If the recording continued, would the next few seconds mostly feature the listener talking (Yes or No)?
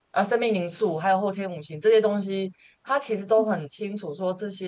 No